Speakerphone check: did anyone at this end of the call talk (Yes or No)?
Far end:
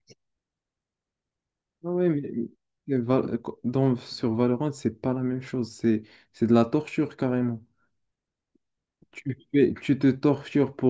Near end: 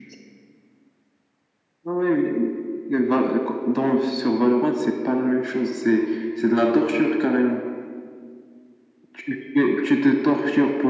No